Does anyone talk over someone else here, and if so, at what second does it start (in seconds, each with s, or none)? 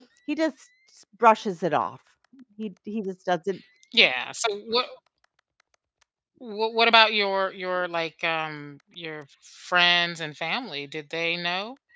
none